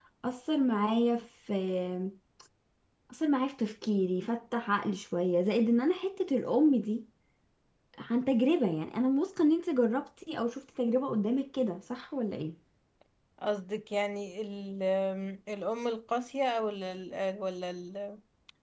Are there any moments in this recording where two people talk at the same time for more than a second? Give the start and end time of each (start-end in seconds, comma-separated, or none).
none